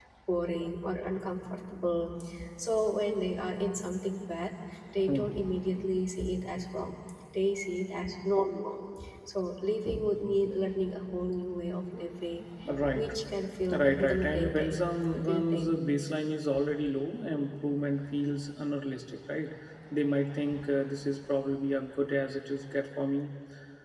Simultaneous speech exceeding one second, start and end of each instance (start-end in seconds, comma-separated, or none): 13.7-15.7